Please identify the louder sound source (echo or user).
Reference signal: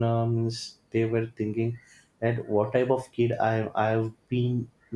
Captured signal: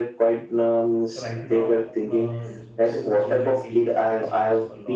echo